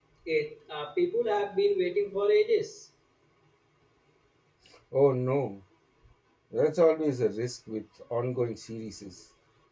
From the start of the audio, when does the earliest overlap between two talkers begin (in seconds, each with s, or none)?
none